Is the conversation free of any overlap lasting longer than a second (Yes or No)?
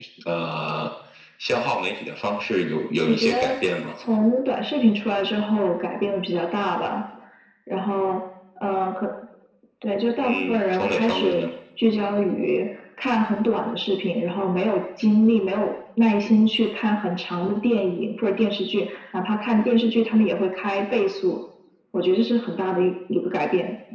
No